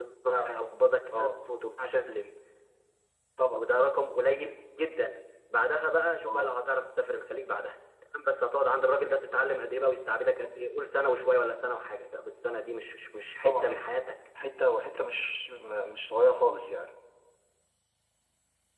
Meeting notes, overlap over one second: none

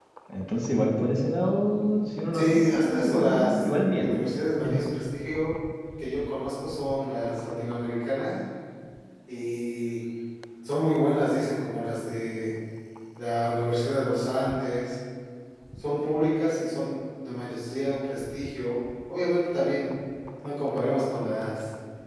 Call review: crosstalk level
present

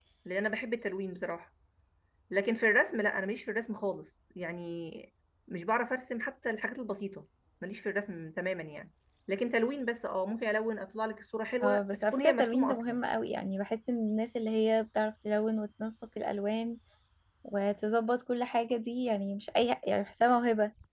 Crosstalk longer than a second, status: present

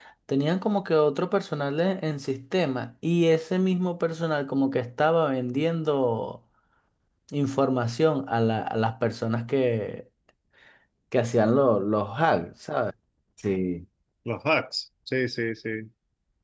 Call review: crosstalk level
none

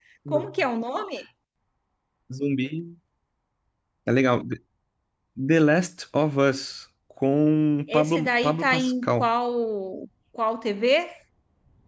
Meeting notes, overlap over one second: present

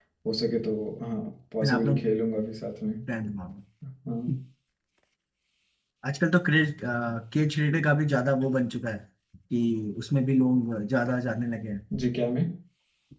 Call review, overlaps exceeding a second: none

